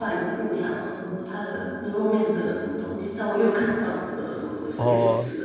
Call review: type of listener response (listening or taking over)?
taking over